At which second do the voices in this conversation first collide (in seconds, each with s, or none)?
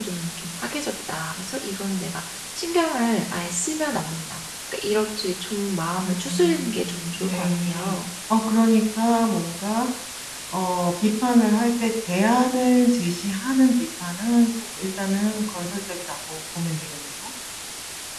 6.0 s